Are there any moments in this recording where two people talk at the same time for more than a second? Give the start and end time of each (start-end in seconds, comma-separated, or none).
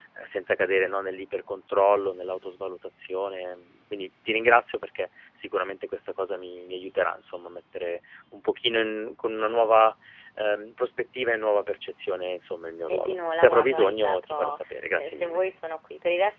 12.9-15.4